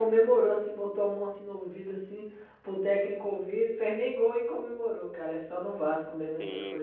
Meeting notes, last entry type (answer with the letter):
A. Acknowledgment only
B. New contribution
B